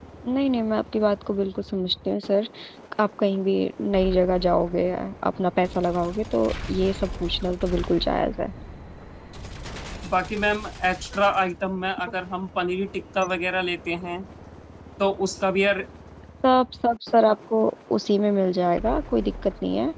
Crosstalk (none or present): none